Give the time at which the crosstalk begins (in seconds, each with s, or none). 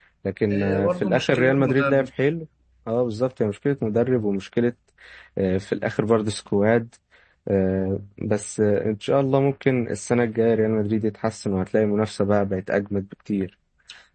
0.5 s